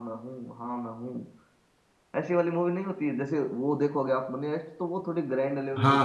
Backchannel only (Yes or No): No